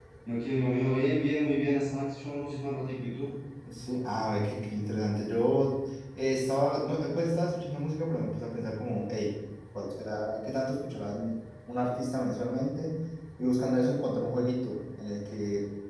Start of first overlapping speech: none

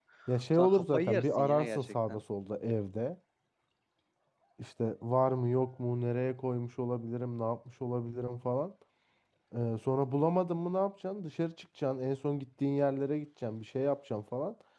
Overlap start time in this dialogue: 1 s

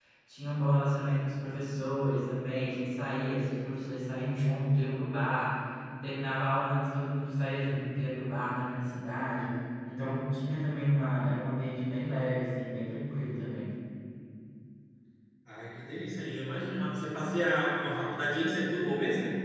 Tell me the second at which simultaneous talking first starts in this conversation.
none

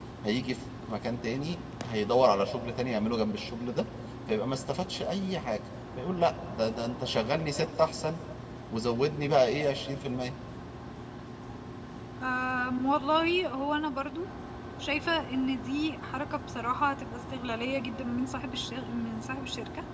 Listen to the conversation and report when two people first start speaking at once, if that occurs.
none

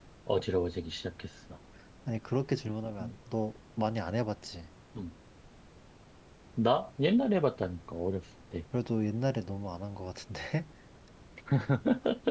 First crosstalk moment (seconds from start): none

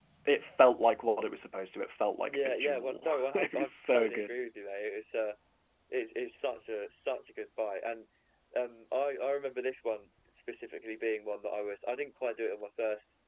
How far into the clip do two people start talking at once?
2 s

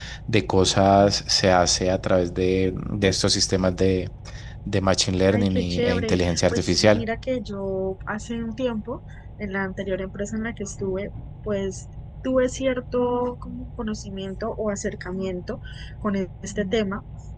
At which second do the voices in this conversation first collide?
5 s

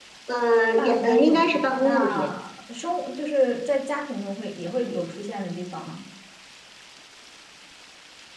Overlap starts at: 1 s

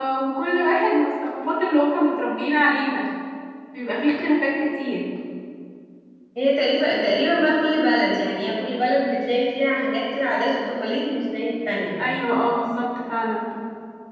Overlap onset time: none

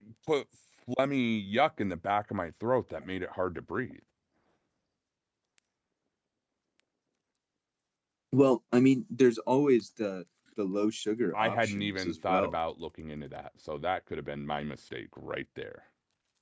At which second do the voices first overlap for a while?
11 s

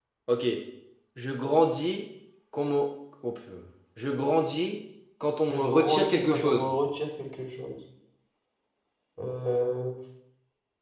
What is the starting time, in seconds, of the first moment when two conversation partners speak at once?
5 s

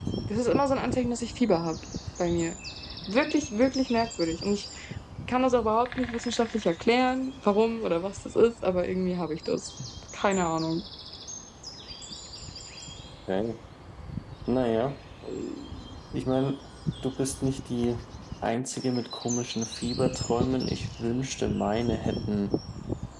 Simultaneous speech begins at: none

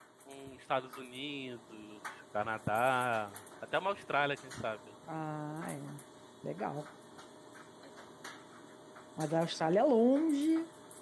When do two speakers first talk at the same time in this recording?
none

